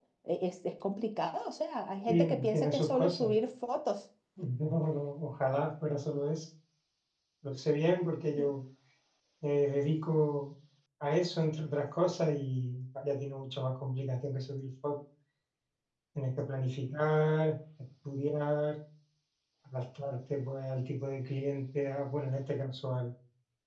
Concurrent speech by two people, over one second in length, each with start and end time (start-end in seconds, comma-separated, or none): 2.1-3.3